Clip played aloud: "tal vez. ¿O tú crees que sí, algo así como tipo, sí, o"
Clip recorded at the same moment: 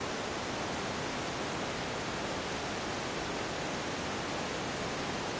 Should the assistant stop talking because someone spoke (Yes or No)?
No